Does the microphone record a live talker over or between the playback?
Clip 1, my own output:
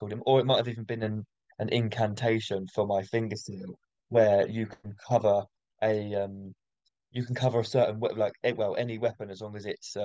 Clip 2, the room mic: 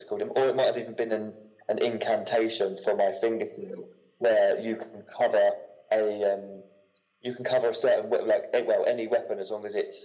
No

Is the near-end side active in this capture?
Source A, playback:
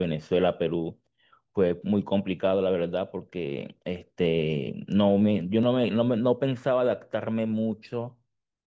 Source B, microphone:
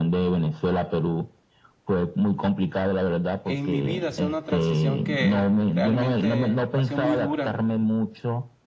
Yes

